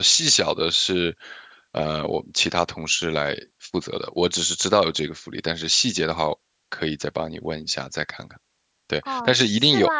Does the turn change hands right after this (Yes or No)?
Yes